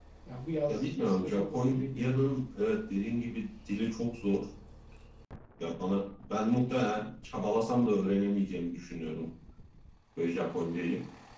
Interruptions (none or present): present